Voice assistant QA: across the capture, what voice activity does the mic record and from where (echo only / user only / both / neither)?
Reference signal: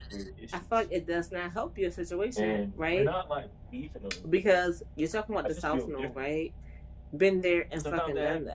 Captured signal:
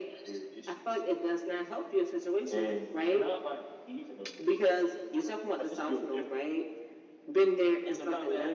echo only